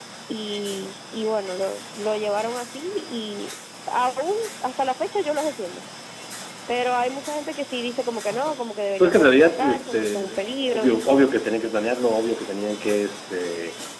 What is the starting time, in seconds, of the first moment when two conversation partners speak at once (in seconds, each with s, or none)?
9.0 s